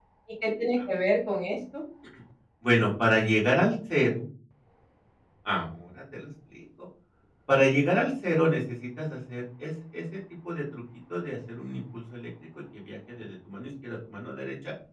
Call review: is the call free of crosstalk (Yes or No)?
Yes